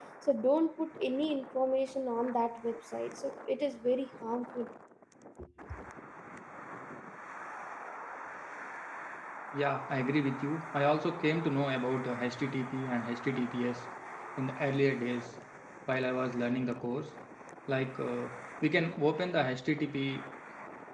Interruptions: none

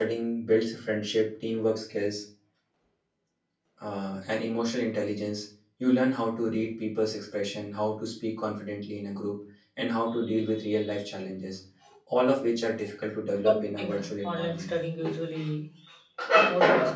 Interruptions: present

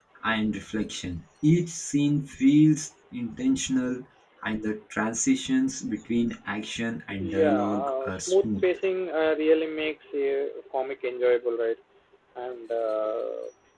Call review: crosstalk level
present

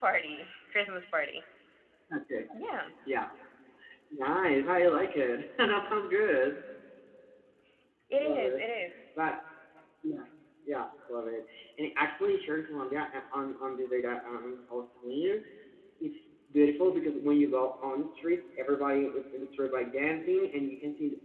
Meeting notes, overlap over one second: none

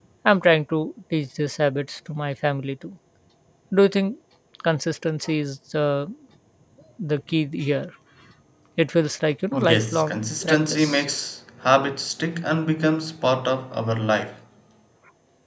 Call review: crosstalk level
present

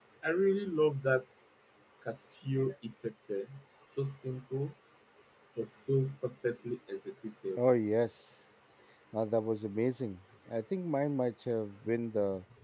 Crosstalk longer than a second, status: none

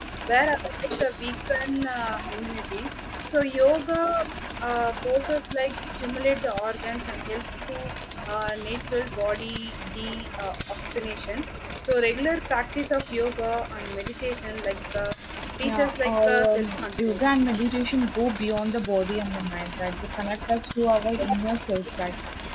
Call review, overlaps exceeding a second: present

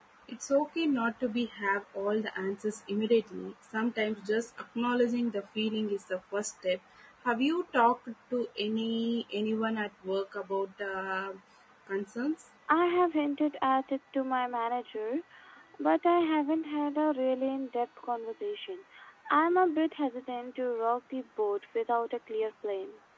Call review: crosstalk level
none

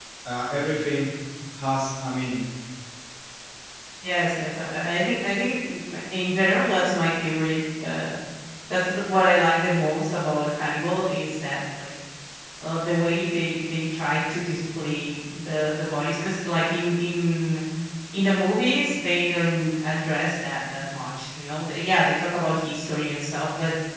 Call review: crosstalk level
none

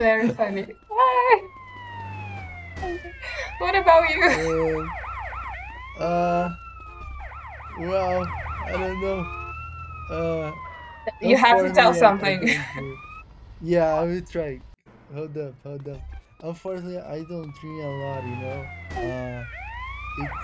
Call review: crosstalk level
present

